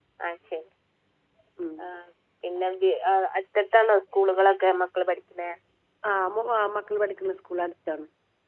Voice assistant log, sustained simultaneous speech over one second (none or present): none